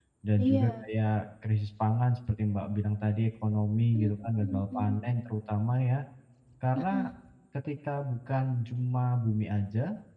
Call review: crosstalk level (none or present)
present